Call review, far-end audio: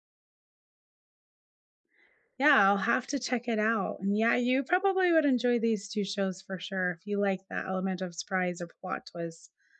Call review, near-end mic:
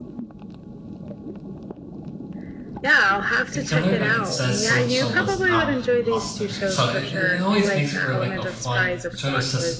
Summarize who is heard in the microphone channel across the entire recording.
both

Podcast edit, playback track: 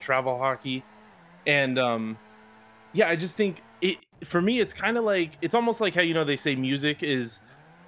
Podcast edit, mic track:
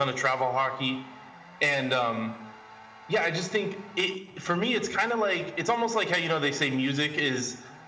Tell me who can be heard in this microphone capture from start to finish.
echo only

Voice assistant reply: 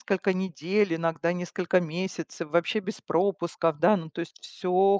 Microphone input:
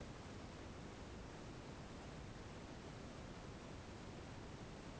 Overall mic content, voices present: neither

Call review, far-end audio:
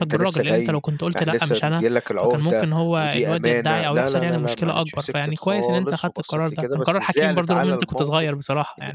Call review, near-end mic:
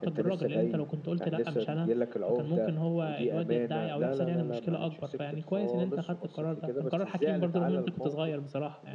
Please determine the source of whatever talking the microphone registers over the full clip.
echo only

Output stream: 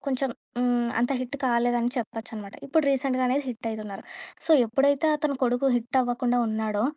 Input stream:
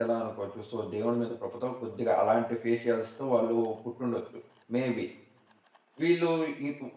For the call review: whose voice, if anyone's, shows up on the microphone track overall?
user only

